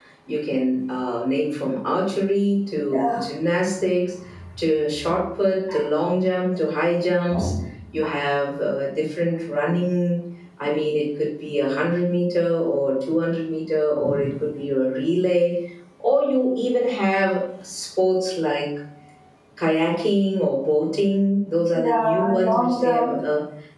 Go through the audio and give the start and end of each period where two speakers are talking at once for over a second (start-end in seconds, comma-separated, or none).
21.7-23.1